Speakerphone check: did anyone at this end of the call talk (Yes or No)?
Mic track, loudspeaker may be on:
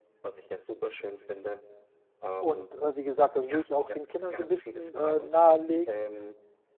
Yes